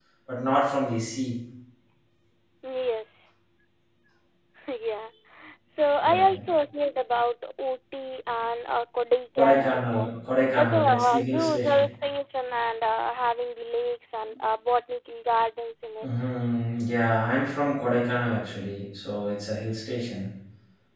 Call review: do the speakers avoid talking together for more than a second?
No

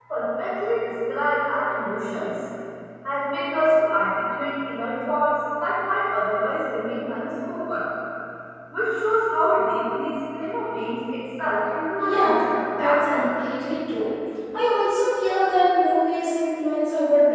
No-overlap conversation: No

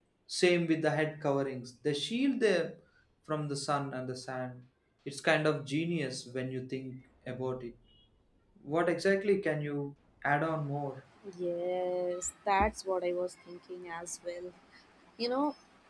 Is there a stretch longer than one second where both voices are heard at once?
No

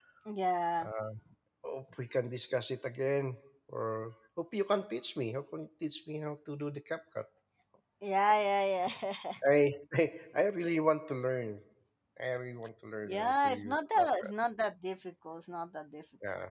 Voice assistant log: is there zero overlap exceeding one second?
No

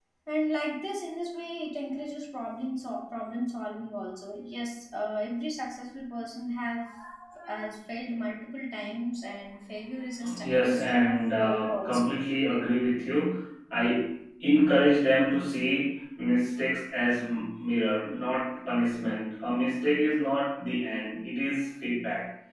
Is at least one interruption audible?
Yes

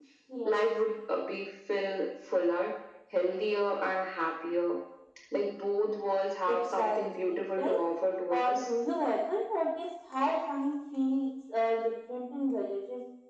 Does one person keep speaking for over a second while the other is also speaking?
Yes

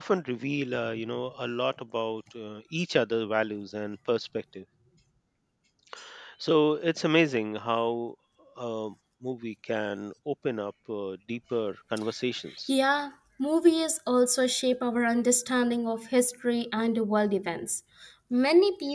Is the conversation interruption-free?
Yes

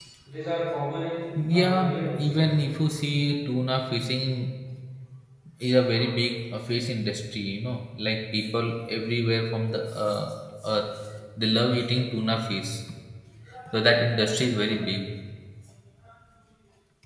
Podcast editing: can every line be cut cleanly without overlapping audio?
No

